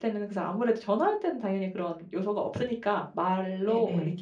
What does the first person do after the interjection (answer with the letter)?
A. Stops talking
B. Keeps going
B